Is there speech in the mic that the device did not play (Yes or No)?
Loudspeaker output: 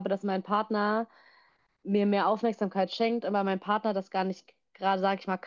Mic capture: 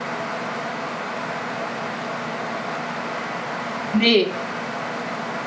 Yes